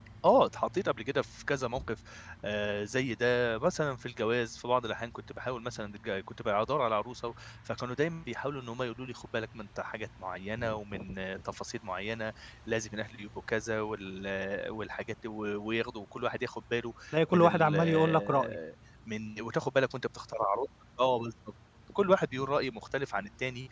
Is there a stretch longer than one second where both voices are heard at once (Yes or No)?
Yes